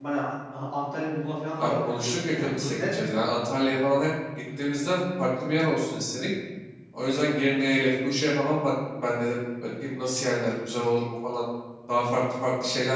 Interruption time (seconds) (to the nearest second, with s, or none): 2 s